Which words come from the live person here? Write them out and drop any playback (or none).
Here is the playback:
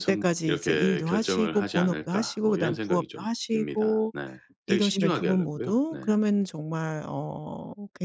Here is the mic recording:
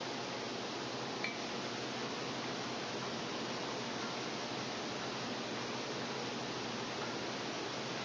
none